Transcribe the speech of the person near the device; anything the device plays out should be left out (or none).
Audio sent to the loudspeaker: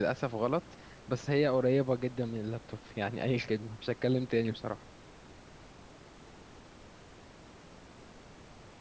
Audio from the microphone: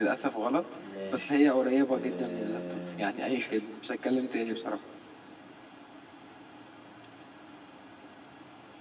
ماشي آه...